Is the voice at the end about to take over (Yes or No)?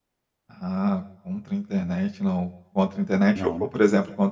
No